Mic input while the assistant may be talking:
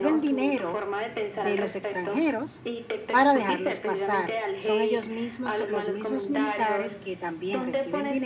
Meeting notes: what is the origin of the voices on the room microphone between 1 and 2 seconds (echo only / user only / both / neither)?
both